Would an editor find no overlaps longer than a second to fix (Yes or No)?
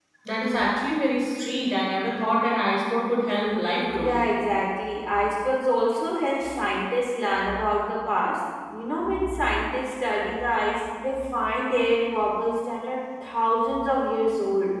Yes